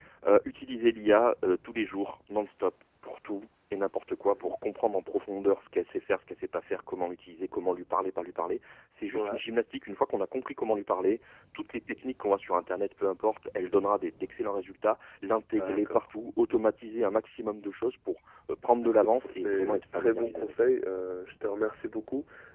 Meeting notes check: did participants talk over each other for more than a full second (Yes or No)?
Yes